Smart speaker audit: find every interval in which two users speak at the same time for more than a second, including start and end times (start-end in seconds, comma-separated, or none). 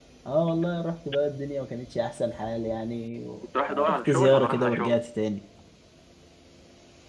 3.7-5.0